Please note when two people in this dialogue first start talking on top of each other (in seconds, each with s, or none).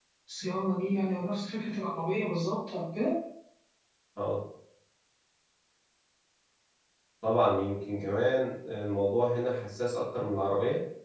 none